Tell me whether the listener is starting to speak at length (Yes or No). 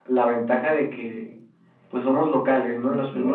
No